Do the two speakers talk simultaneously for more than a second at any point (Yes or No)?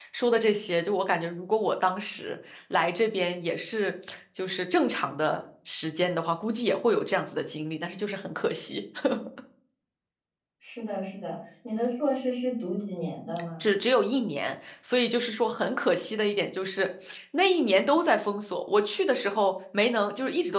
No